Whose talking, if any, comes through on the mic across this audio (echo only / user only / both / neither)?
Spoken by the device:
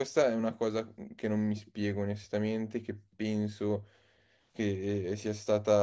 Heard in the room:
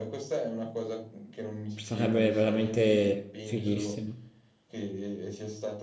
both